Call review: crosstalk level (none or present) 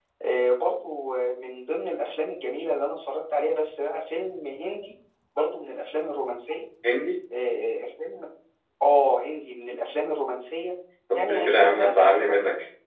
present